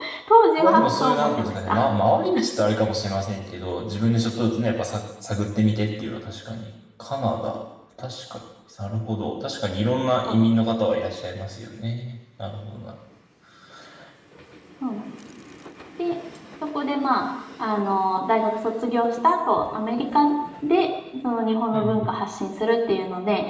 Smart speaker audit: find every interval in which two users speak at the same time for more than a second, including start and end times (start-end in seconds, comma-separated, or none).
0.6-1.9